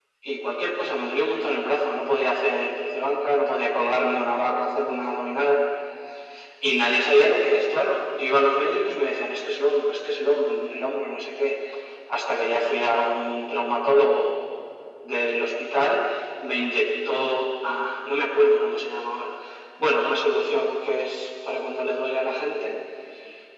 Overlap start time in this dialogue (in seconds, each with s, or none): none